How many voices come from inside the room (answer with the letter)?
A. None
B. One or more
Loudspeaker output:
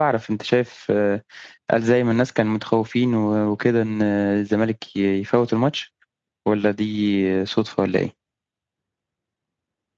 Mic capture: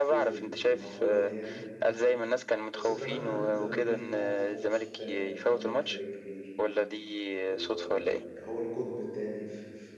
B